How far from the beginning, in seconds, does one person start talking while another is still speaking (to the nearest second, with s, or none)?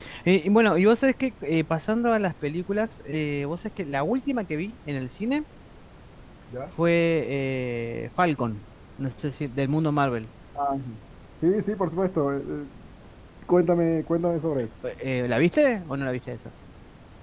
none